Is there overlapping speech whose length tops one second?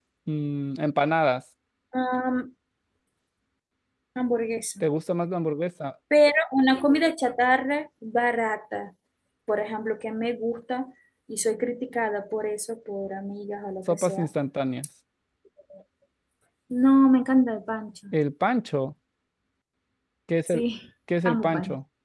No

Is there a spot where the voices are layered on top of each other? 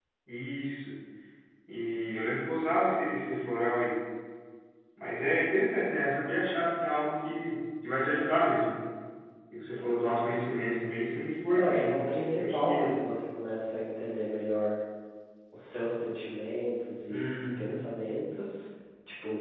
Yes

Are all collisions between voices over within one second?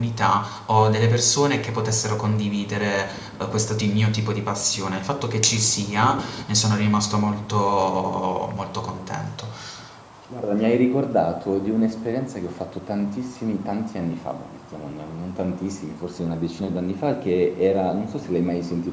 Yes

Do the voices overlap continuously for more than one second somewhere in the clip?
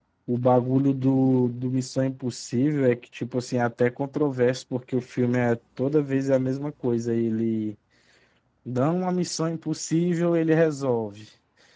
No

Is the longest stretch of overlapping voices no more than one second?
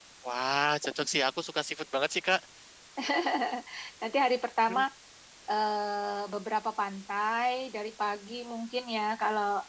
Yes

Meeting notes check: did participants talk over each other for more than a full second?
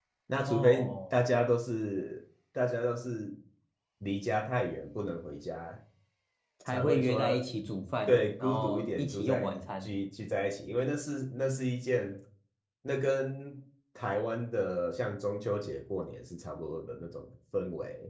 Yes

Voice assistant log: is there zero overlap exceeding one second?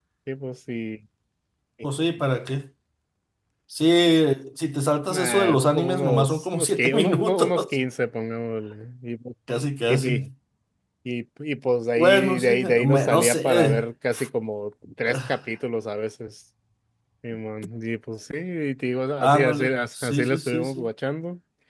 No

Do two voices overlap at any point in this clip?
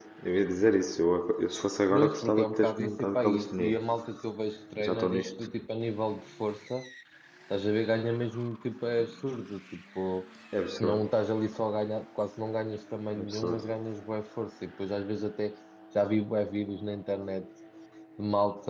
Yes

